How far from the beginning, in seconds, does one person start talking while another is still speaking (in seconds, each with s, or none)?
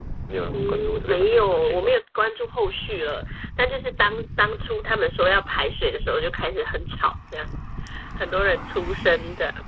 0.5 s